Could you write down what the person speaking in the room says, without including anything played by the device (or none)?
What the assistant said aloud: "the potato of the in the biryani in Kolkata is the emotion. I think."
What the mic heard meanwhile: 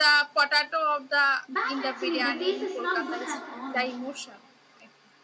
bad actually. The taste is not good at all,